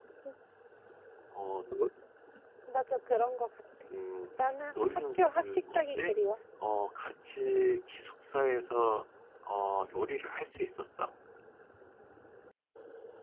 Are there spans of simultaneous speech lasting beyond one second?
Yes, from 4.8 s

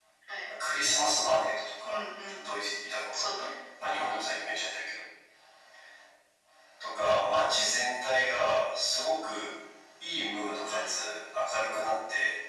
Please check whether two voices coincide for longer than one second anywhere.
No

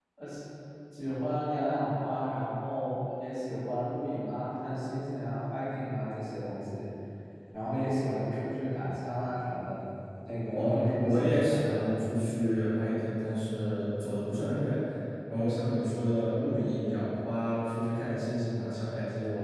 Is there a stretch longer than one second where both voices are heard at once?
Yes, from 10.5 s

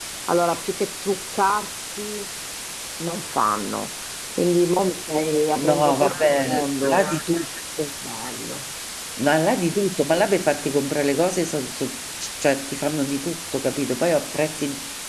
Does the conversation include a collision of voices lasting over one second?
Yes, from 5.6 s

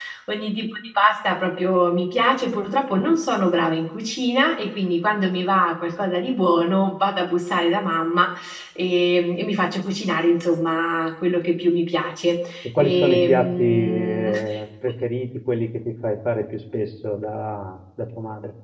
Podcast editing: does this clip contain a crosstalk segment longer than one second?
Yes, from 12.6 s

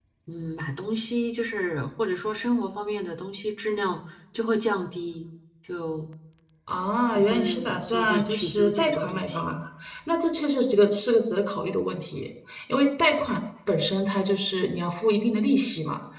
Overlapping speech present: Yes, from 7.1 s

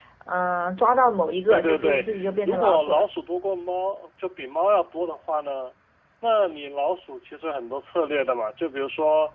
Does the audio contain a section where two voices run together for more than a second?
Yes, from 1.5 s

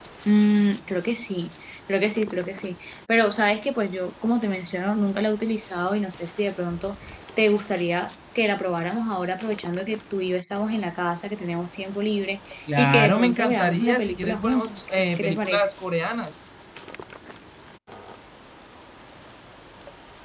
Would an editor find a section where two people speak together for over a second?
Yes, from 12.7 s

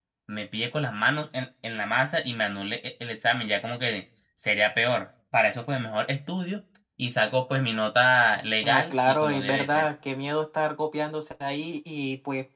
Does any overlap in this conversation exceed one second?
Yes, from 8.6 s

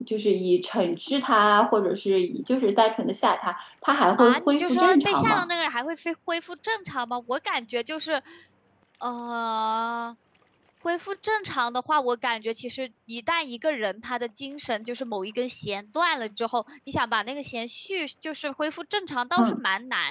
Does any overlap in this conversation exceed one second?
Yes, from 4.2 s

